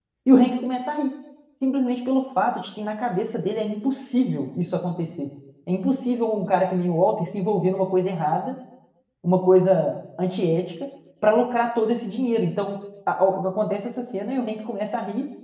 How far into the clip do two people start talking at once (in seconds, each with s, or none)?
none